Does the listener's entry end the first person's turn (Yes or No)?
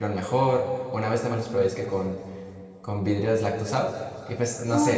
Yes